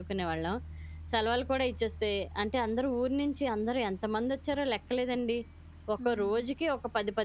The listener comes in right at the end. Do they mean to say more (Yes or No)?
No